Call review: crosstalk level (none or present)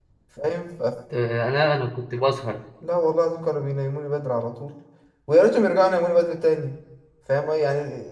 none